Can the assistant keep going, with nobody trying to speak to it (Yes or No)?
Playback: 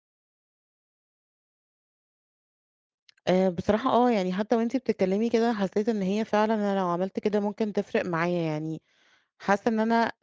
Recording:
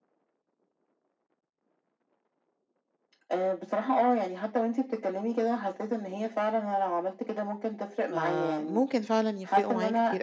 No